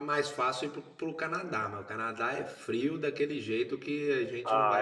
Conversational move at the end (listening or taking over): taking over